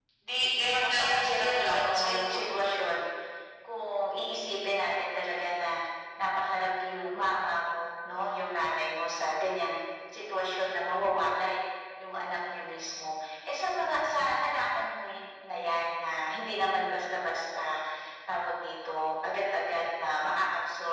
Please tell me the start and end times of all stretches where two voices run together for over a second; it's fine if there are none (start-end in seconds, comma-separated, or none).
0.8-2.4